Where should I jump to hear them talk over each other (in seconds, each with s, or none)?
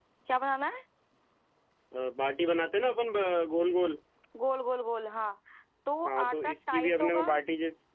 6.1 s